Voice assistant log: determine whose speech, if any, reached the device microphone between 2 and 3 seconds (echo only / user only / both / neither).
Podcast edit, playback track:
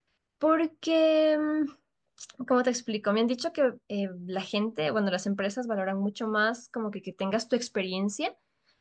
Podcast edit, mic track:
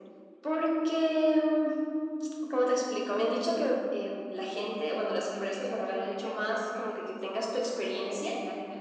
echo only